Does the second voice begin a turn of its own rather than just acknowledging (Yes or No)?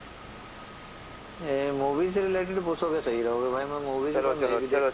Yes